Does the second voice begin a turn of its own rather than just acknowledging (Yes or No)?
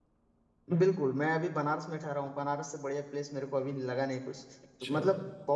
No